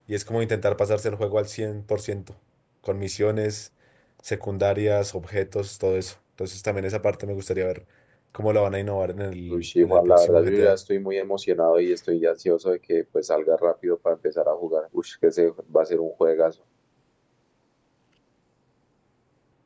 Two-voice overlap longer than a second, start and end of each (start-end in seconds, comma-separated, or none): 9.5-10.8